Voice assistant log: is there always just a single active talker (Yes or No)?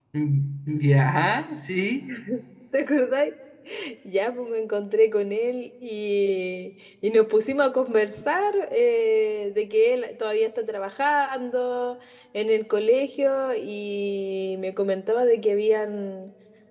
Yes